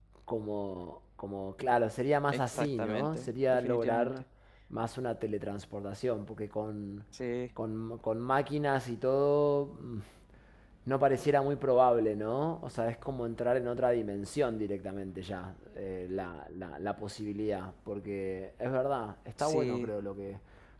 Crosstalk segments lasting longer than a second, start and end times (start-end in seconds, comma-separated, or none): 2.3-4.1